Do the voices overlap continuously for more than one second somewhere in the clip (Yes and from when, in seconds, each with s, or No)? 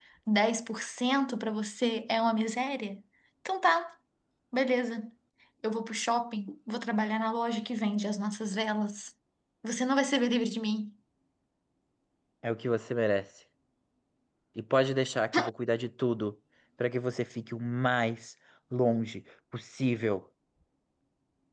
No